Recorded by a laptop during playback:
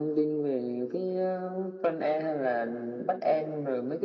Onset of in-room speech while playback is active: none

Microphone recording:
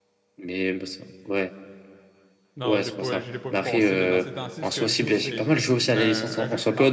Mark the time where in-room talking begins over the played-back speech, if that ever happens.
2.6 s

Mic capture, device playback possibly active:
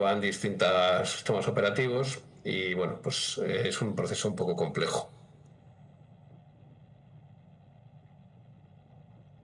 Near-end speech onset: none

